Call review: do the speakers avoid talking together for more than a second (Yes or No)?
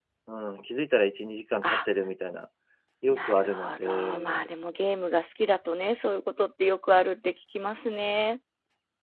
No